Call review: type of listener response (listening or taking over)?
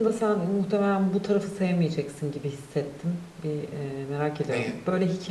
listening